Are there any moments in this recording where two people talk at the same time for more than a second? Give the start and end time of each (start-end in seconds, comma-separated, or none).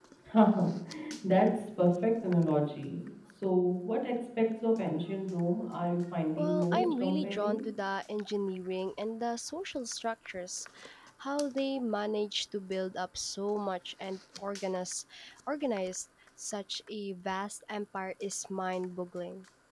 6.4-7.6